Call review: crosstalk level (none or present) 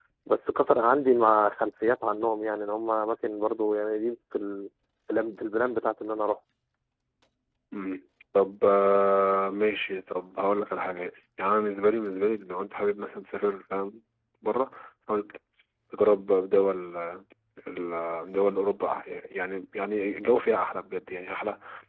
none